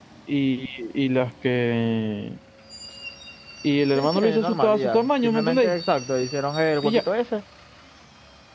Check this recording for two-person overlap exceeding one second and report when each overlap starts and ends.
3.9-5.7

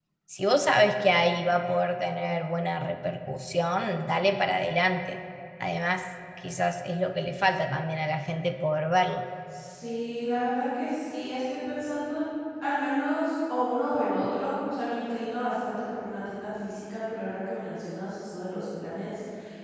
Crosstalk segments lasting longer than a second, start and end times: none

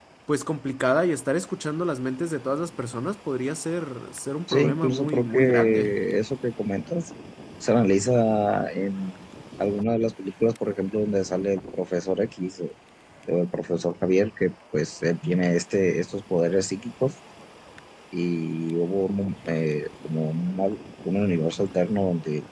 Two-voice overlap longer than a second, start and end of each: 4.5-6.0

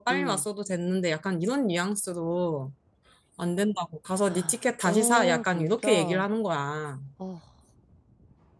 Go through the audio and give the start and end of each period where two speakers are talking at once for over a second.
4.8-6.3

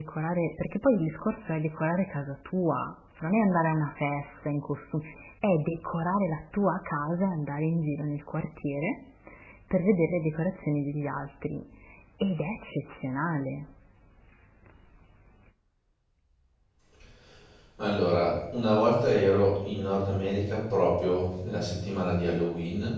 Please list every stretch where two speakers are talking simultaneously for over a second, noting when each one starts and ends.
none

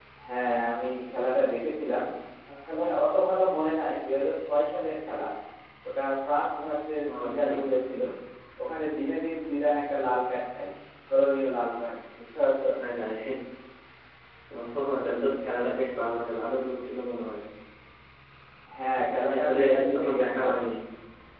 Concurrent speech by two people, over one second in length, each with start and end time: 19.1-20.4

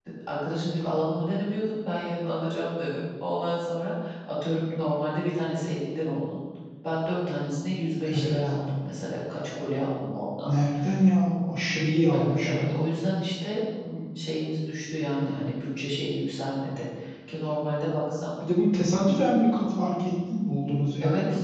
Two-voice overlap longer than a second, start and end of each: none

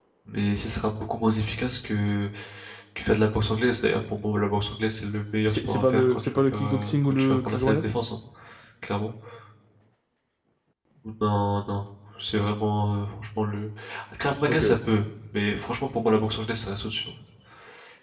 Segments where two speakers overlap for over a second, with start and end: 5.5-7.8

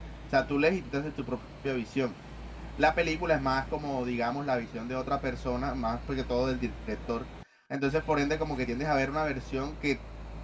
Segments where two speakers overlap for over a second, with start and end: none

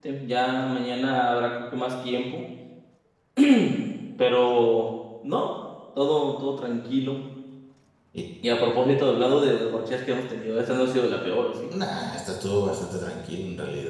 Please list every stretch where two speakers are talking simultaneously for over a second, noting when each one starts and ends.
none

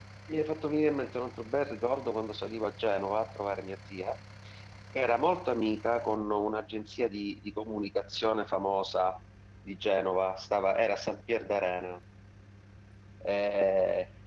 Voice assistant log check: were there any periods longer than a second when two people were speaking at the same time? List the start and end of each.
none

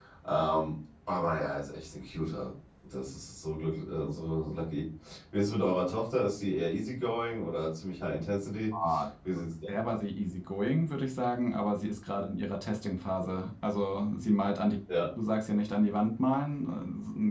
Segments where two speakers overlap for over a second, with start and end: none

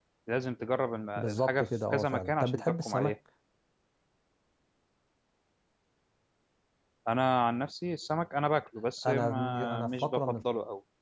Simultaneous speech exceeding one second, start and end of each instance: 1.2-3.1, 9.1-10.4

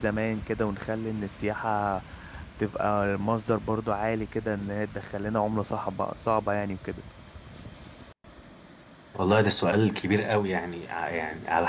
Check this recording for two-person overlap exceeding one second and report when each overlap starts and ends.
none

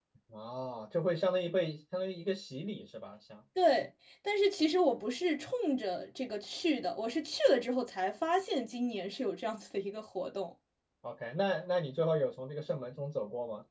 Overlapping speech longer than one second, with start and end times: none

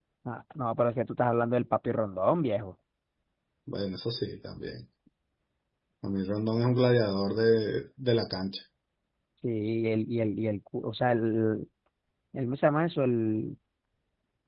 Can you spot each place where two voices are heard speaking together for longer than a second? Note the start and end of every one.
none

